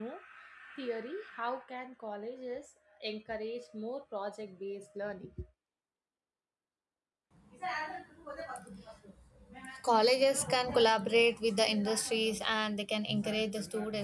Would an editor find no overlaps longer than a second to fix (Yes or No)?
Yes